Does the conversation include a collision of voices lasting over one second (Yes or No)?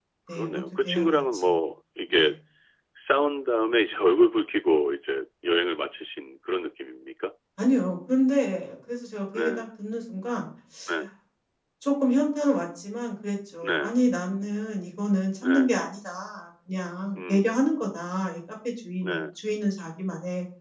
Yes